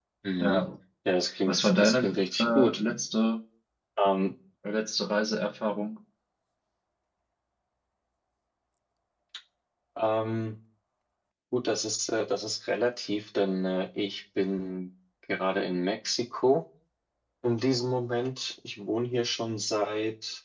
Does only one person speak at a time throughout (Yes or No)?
No